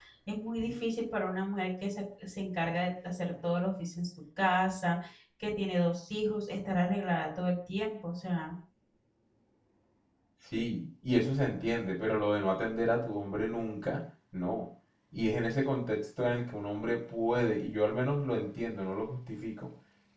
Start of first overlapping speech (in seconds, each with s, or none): none